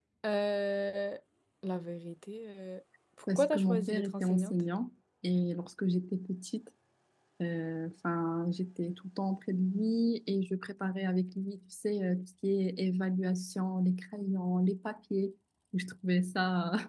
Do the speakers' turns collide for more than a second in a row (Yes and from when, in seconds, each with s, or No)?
Yes, from 3.3 s